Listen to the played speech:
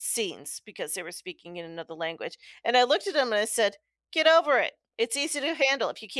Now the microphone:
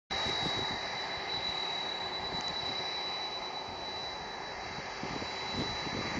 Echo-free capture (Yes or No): Yes